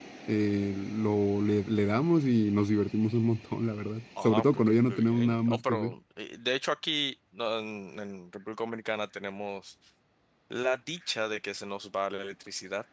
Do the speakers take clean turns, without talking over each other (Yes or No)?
No